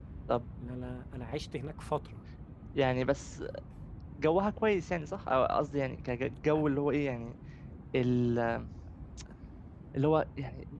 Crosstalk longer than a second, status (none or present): none